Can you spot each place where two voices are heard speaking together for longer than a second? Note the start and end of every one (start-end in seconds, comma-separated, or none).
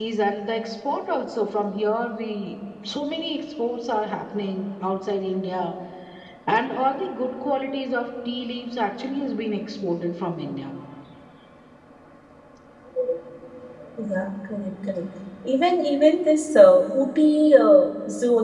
none